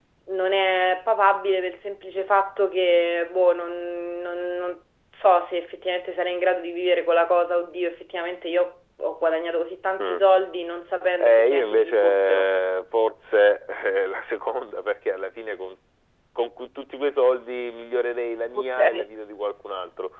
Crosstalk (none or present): present